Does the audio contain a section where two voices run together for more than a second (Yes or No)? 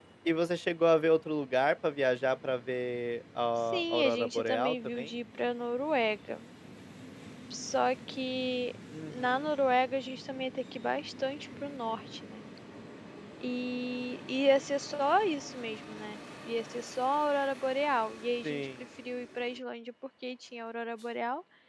Yes